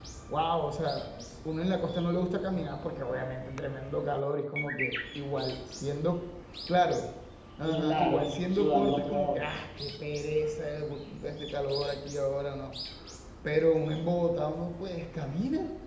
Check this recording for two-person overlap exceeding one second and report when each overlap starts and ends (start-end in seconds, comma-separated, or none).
7.6-9.5